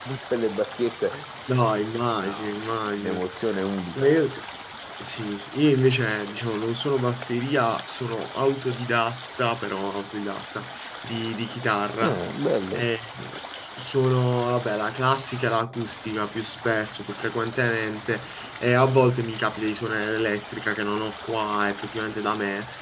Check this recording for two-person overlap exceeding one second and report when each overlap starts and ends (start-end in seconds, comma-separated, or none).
none